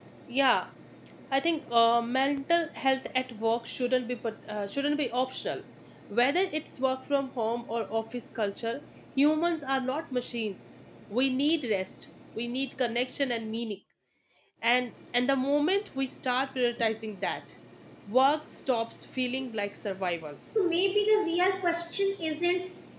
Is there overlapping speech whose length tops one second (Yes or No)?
No